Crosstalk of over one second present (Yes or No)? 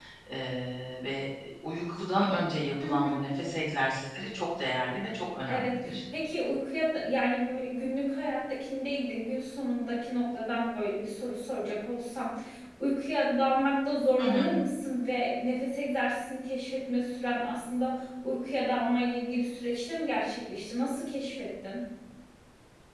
No